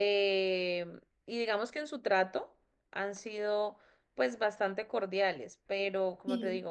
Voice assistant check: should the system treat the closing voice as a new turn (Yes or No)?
No